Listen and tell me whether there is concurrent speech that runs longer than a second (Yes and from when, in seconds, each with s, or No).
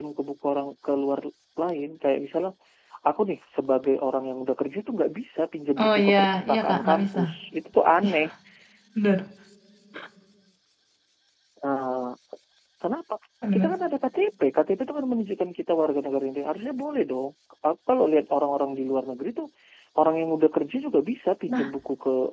Yes, from 5.8 s